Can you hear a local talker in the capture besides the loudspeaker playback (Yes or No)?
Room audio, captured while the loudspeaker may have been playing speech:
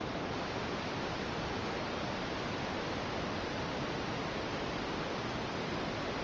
No